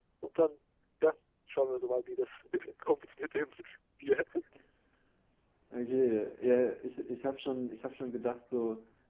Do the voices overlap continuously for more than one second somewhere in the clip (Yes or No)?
No